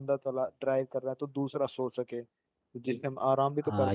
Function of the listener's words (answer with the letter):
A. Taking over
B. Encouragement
A